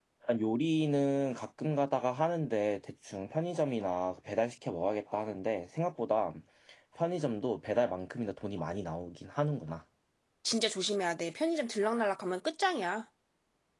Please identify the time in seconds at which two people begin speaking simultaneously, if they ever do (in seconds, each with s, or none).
none